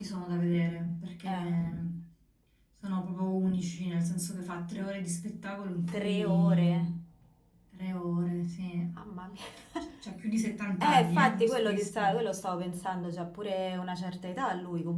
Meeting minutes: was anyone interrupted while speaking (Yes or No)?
Yes